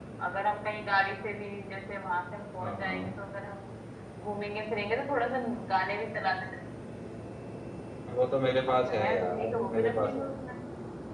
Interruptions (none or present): present